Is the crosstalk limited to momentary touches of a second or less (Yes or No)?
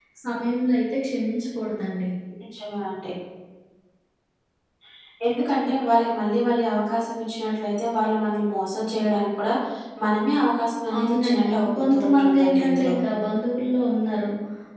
No